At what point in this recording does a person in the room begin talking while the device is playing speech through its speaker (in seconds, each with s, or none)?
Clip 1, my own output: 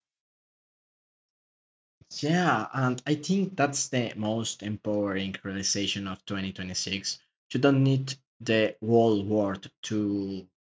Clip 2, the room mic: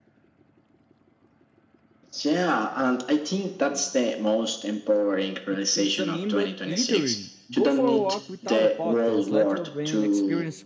5.5 s